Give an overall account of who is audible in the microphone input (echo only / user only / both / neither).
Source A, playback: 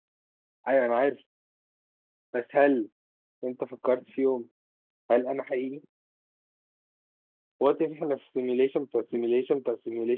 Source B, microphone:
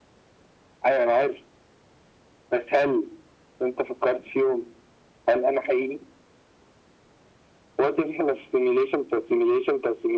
echo only